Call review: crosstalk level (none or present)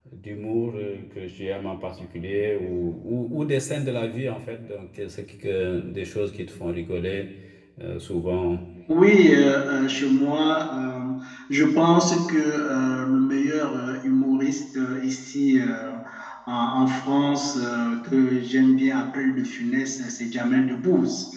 none